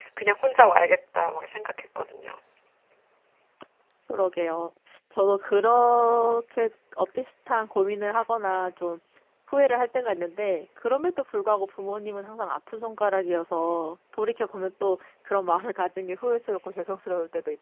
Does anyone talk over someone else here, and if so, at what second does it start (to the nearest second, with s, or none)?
none